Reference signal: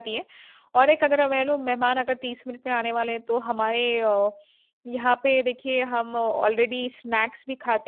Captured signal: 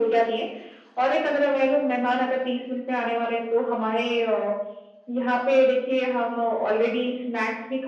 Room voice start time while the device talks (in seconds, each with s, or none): none